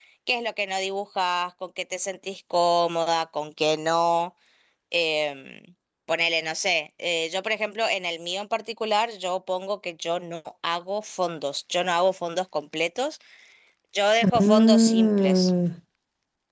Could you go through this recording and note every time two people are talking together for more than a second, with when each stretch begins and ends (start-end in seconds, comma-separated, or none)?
14.2-15.5